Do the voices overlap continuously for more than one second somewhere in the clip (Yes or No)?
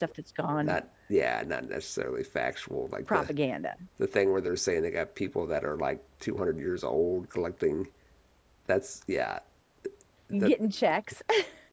No